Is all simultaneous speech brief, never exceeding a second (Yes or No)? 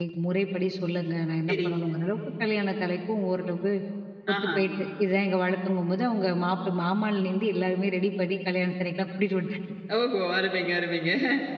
Yes